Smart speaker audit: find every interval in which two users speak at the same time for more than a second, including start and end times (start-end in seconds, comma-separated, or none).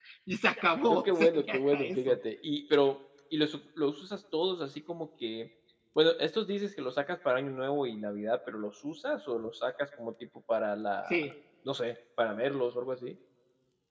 0.9-2.2